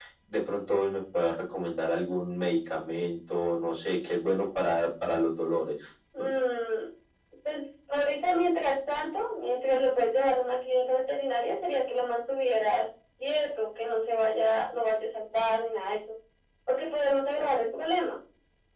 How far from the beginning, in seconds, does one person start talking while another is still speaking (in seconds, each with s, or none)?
none